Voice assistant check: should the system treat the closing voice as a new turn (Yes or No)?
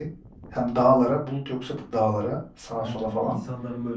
Yes